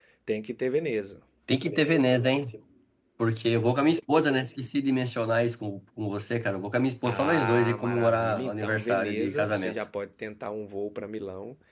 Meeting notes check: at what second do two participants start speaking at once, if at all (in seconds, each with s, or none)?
7.0 s